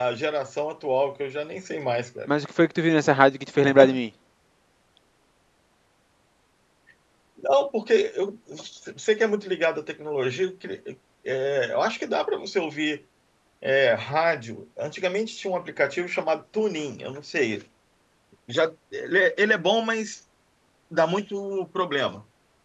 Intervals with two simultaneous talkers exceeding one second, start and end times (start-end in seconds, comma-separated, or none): none